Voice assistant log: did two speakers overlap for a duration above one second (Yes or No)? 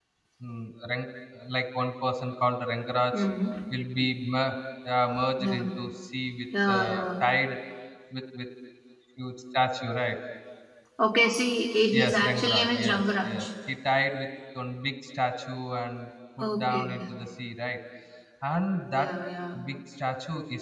Yes